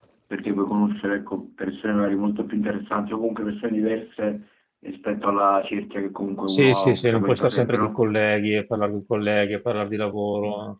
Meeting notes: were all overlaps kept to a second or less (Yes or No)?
No